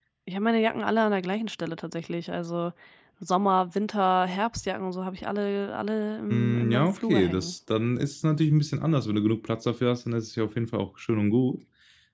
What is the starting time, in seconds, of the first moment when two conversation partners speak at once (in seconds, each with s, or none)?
6.3 s